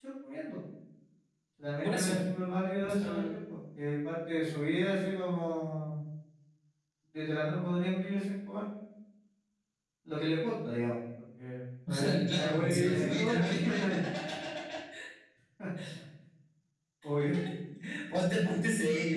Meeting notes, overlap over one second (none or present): present